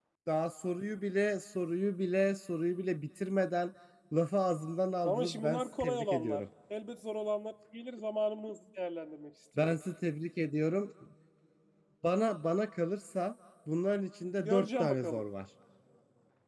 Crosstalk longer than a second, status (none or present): present